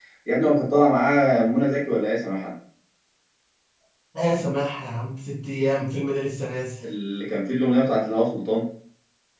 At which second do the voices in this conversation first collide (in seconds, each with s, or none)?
none